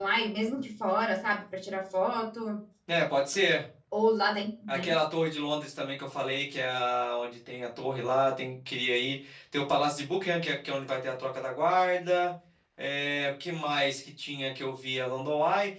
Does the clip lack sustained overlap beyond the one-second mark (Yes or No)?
Yes